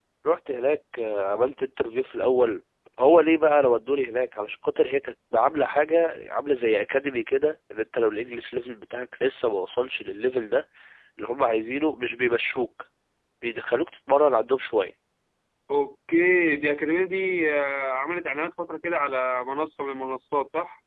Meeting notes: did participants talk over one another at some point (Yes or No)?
No